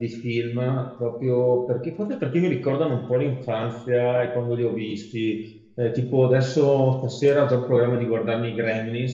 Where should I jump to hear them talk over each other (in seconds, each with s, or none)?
none